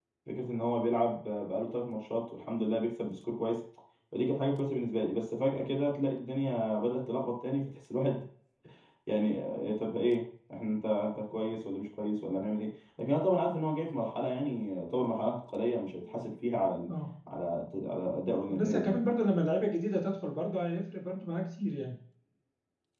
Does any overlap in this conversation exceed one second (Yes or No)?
No